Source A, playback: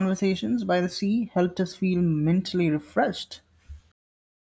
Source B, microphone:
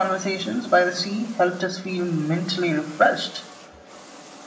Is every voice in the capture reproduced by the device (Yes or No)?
Yes